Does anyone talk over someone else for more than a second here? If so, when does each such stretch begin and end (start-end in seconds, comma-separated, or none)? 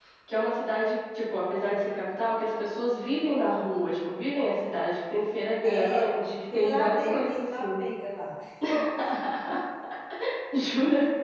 6.5-7.8